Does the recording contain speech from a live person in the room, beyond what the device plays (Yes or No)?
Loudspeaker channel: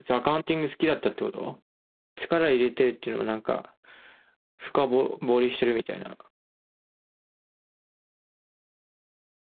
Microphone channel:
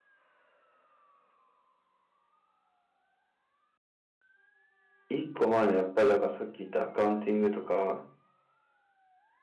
Yes